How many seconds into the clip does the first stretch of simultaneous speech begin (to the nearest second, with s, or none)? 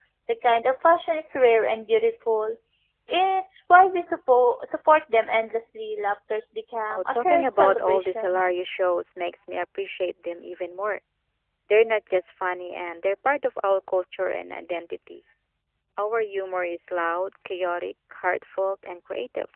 7 s